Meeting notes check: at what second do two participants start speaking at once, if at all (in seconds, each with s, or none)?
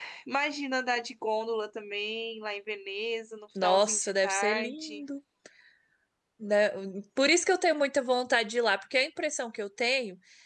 3.5 s